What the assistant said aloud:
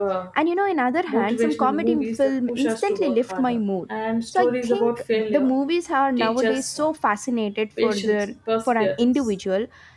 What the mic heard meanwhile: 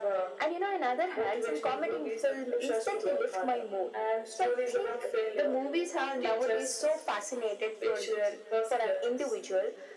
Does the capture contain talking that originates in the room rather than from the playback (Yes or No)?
No